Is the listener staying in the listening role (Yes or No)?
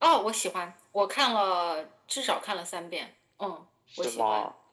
No